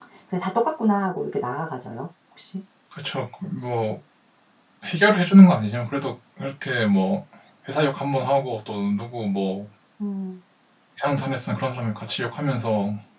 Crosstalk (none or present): none